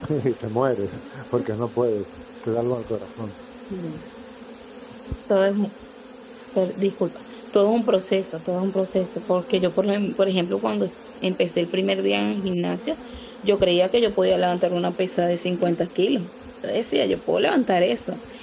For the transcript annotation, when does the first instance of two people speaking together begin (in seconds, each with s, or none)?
none